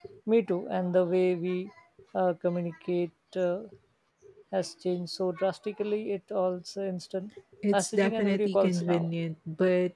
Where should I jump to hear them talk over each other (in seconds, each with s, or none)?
7.7 s